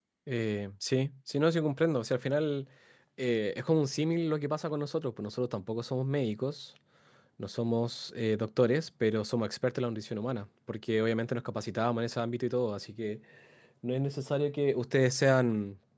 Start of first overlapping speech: none

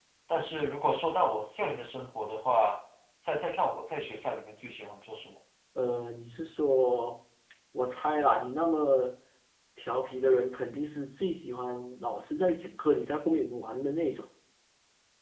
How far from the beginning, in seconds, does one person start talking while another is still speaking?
none

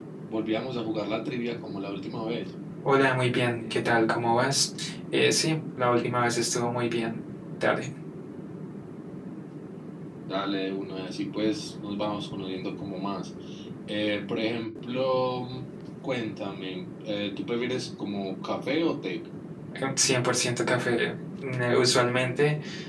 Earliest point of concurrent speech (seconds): none

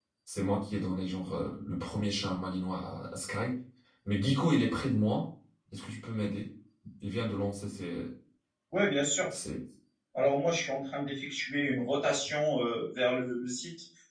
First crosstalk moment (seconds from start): none

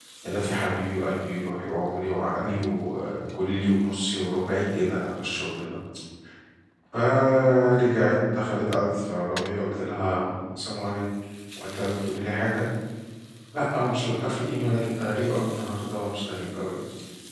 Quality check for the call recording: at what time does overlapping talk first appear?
none

